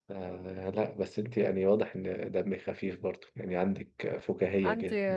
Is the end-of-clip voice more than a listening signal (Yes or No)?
No